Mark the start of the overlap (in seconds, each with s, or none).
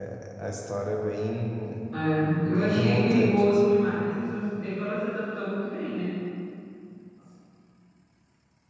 2.4 s